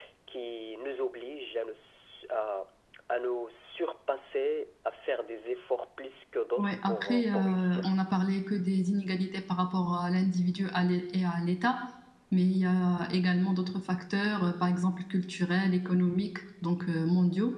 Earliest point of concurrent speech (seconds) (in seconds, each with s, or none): 6.6 s